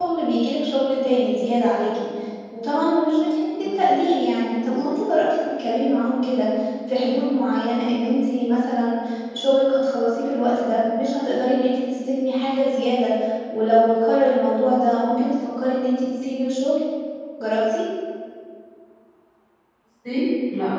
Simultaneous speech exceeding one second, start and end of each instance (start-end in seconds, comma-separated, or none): none